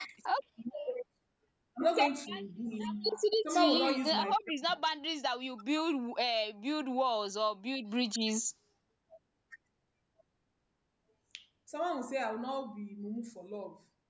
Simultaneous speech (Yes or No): Yes